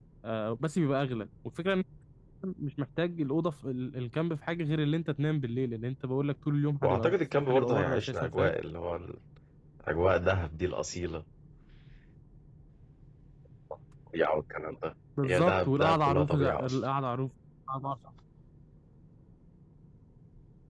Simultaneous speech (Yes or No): Yes